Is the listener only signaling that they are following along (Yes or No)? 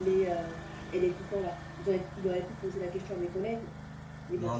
No